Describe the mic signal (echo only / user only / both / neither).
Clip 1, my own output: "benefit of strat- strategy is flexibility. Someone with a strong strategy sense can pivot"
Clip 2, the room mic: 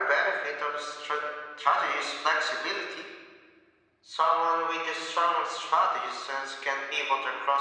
echo only